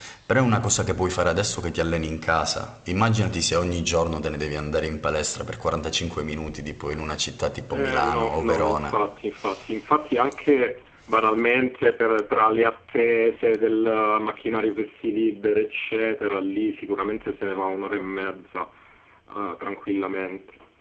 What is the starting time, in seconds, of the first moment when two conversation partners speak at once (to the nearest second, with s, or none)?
8 s